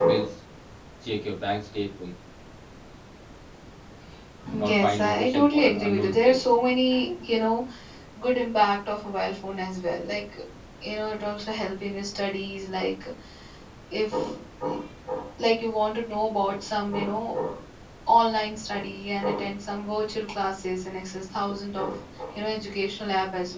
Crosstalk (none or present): present